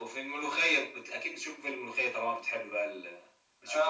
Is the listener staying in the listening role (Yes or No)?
No